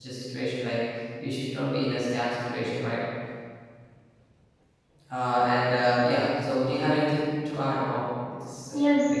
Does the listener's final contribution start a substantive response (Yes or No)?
Yes